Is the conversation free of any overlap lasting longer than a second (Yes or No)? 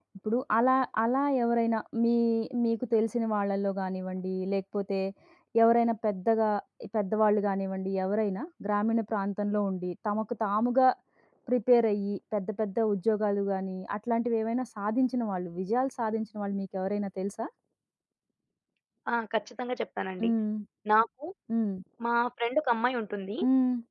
Yes